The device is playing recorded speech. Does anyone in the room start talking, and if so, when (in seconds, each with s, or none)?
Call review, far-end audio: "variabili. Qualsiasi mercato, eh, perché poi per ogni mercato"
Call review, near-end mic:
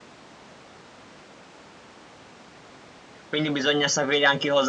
3.2 s